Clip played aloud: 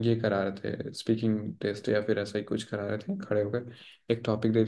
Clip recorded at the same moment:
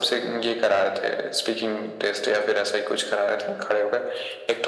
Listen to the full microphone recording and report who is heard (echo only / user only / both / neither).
echo only